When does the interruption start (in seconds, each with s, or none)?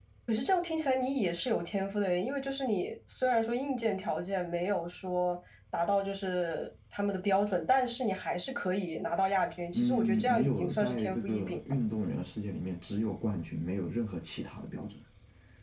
9.7 s